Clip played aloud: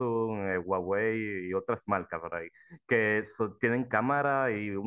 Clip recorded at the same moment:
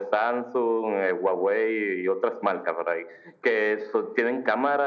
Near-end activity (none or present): none